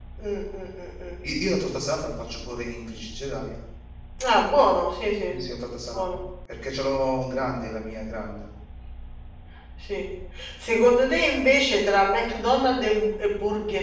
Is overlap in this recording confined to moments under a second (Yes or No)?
Yes